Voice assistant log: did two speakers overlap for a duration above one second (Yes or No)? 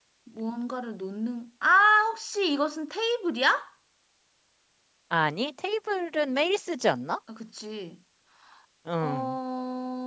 No